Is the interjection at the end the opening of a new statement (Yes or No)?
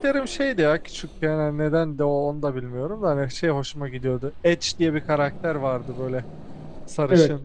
No